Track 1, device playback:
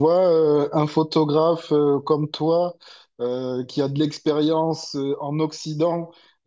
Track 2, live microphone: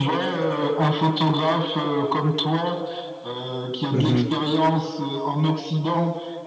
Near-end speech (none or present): present